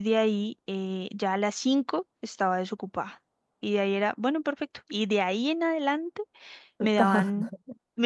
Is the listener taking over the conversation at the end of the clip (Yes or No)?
No